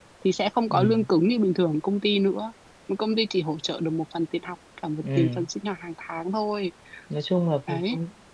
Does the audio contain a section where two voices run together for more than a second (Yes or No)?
No